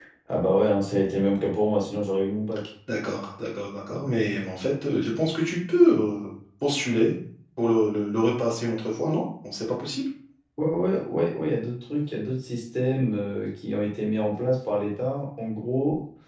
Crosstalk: none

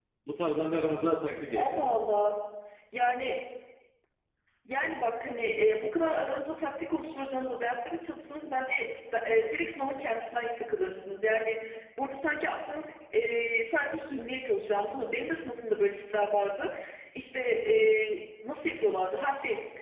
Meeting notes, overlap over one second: none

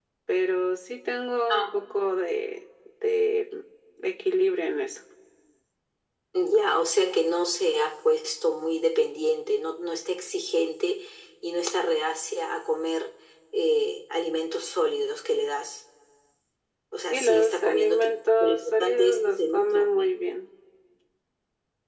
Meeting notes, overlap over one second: present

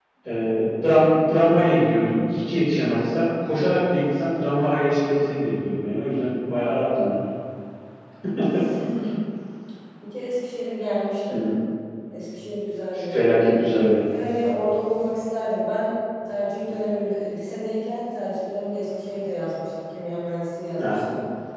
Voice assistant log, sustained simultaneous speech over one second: none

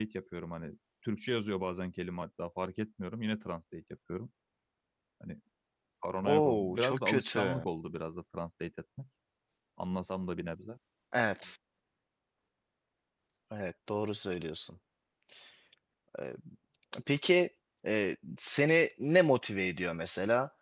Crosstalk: present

